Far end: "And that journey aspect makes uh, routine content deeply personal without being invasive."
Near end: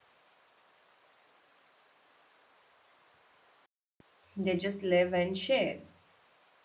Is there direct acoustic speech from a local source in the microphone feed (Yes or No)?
Yes